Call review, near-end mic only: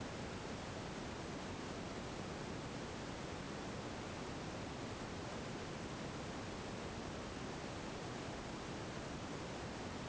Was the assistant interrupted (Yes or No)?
No